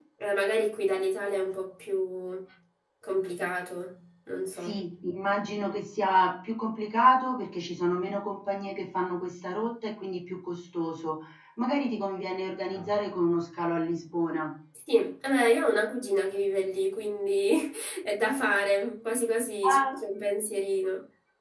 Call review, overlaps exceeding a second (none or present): none